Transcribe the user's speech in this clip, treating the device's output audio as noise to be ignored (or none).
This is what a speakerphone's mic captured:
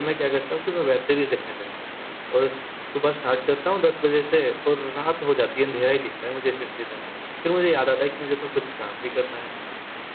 none